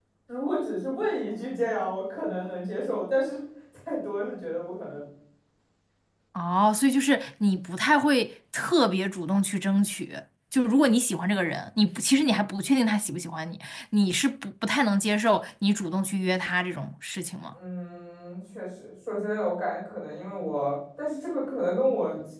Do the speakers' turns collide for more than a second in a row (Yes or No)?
No